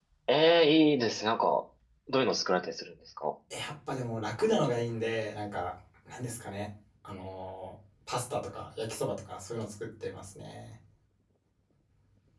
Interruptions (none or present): none